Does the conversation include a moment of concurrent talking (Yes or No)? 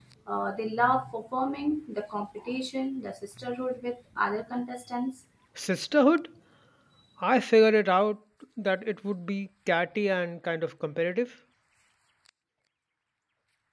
No